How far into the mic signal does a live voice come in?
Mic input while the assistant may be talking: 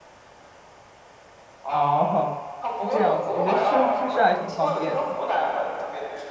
1.7 s

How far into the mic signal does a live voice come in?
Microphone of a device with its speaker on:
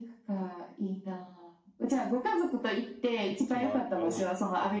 3.3 s

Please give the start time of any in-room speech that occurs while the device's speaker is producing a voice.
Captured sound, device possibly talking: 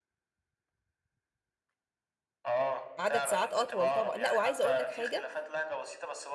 3.0 s

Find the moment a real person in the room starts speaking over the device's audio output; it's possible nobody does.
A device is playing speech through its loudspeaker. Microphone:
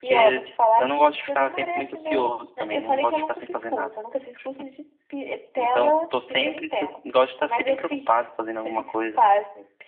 none

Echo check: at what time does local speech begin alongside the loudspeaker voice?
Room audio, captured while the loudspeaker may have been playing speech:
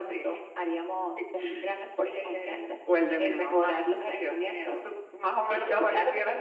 none

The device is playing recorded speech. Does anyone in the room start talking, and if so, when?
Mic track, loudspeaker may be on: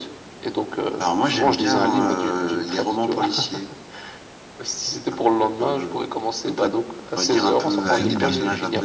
7.7 s

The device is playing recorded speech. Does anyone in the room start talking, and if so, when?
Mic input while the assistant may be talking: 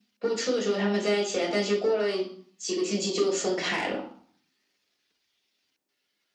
none

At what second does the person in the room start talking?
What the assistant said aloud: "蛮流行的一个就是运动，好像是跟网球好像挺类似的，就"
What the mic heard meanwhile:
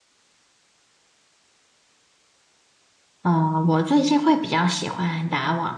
3.2 s

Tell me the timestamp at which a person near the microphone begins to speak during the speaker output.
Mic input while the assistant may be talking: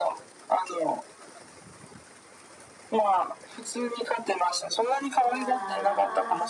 5.2 s

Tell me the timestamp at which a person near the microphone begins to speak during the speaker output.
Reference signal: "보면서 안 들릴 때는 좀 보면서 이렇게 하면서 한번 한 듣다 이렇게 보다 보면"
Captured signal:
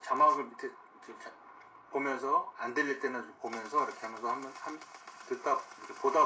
none

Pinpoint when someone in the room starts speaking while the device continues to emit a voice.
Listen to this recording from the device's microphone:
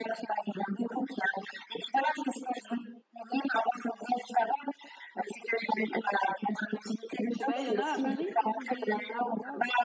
7.3 s

